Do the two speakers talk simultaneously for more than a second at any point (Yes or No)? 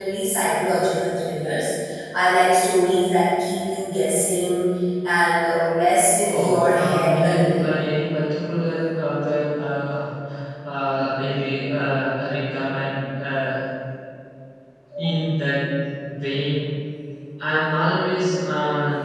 Yes